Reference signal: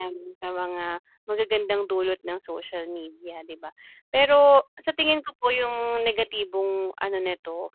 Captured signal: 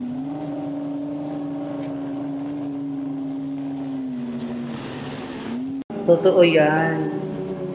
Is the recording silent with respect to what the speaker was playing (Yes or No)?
Yes